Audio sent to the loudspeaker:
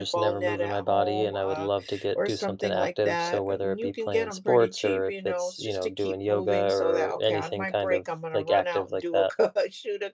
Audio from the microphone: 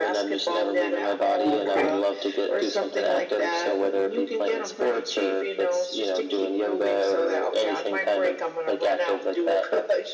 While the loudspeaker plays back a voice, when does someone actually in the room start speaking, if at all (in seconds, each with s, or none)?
1.4 s